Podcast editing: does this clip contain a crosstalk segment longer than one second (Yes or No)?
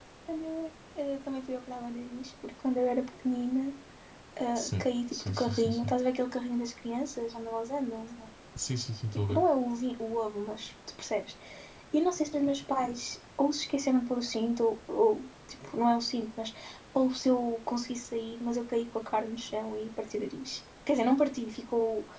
Yes